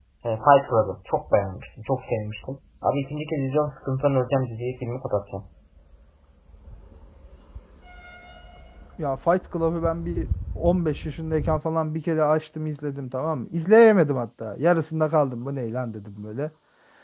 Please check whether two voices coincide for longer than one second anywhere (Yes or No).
No